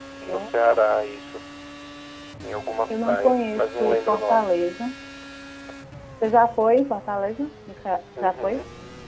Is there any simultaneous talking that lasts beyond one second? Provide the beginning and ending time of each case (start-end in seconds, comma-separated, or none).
3.1-4.5